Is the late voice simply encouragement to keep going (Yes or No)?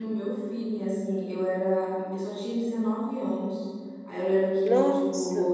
Yes